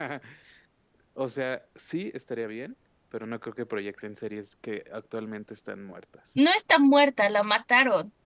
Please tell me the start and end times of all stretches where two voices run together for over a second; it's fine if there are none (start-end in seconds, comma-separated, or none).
none